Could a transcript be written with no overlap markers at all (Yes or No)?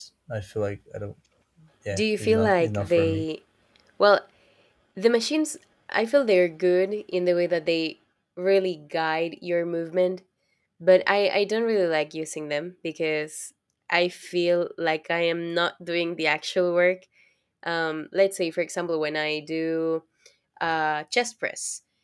No